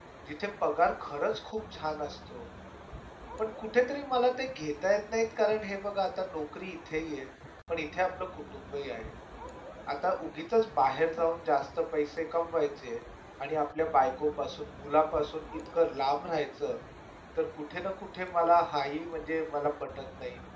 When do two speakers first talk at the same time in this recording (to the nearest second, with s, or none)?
none